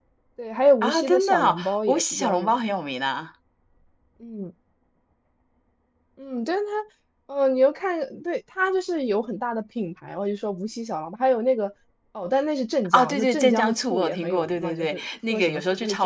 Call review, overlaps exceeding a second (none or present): present